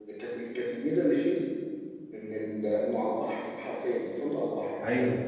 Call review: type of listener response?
listening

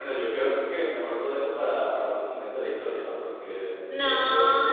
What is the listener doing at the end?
taking over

